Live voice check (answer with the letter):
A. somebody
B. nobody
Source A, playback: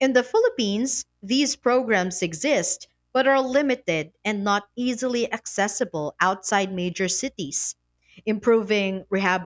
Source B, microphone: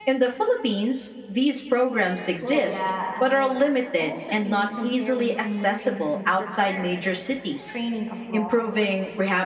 A